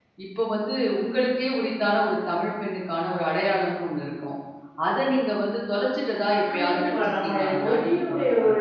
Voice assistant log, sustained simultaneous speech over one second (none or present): present